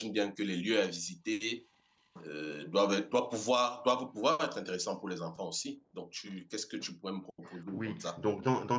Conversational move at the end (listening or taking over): taking over